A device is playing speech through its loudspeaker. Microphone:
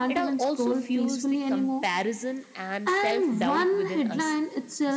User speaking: No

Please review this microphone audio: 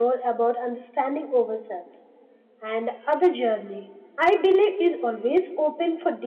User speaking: Yes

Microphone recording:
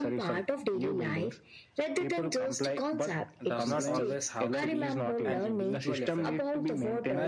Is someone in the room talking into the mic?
Yes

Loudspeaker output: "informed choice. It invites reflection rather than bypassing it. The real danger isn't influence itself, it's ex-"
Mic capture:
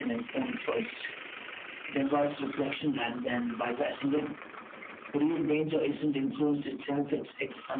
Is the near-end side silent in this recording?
Yes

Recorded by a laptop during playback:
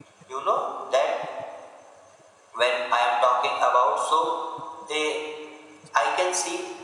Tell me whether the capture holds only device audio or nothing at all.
Yes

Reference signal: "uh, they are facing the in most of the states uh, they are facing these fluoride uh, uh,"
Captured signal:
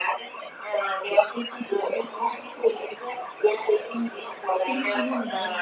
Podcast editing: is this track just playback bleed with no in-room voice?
No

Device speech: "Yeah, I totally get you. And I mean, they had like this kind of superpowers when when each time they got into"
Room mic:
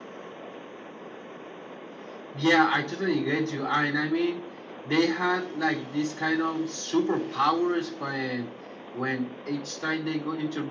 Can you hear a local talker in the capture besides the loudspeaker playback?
No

